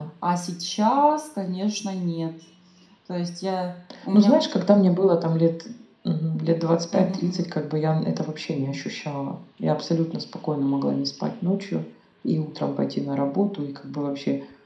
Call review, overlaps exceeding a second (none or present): none